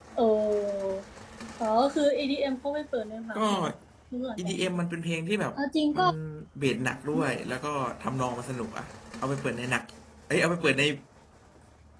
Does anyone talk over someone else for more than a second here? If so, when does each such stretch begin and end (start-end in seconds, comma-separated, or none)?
none